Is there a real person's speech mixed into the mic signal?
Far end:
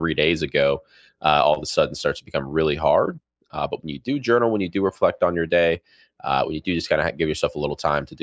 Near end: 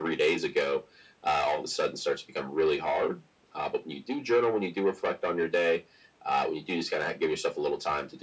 No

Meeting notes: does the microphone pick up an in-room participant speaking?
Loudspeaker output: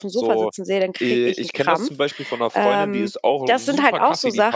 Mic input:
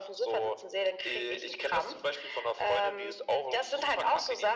No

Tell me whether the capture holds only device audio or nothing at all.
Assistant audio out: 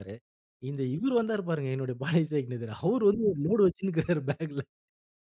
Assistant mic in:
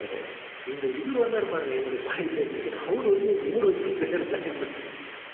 Yes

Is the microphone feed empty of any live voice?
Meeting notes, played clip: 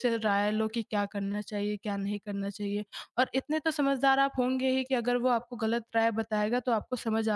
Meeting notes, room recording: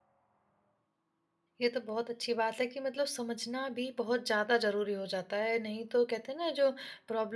No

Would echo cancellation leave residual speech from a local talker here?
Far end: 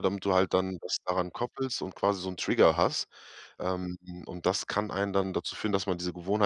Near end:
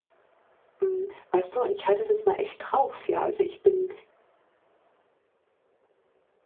Yes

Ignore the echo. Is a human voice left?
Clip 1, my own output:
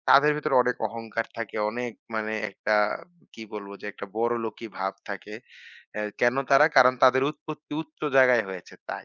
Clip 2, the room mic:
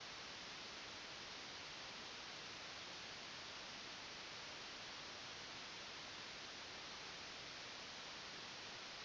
No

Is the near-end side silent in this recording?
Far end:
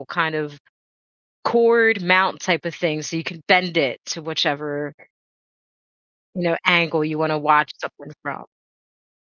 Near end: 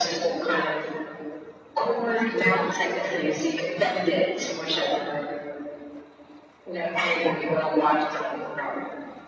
Yes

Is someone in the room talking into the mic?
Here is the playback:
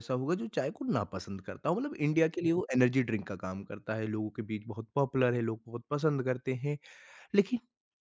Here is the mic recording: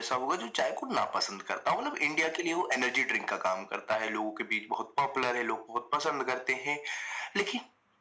No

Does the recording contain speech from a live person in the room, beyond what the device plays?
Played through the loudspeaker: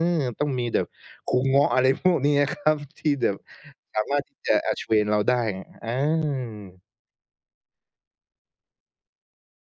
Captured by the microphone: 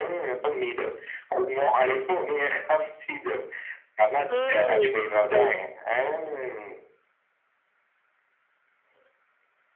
Yes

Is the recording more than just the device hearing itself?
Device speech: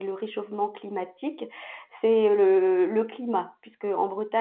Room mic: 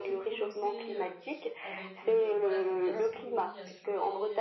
Yes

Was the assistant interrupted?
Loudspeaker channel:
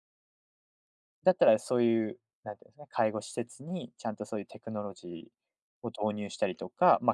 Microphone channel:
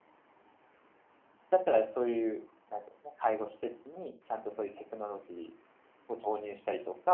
No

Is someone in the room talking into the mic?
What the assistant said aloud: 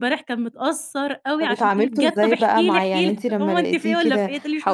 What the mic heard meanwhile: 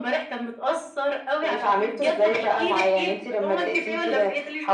No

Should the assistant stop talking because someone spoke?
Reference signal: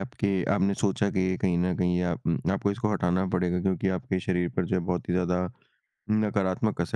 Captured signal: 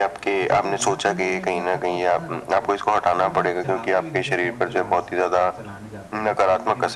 Yes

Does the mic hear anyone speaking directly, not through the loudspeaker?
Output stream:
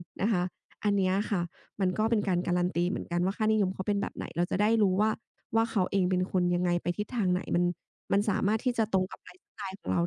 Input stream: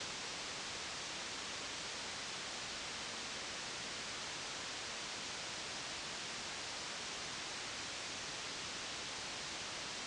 No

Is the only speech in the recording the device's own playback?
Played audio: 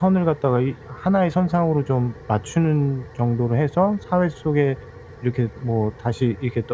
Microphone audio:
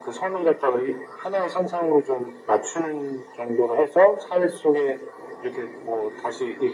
Yes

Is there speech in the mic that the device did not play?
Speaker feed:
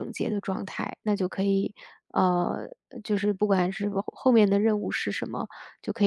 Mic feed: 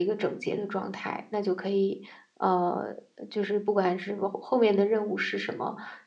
No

